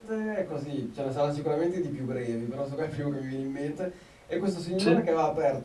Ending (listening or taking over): listening